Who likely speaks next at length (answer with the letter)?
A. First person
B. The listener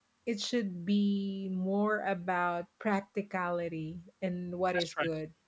A